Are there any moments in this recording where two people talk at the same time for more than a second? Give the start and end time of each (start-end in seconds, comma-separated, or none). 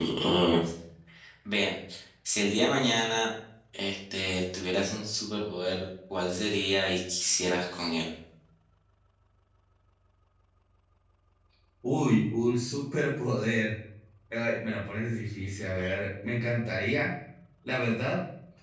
none